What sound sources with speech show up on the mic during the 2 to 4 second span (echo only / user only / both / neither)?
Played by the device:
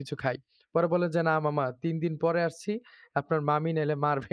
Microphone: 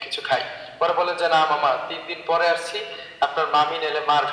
echo only